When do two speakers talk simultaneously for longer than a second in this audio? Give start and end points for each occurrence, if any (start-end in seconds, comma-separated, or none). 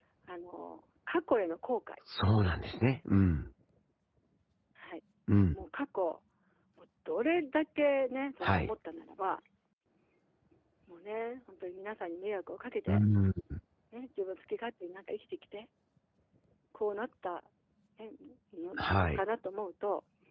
none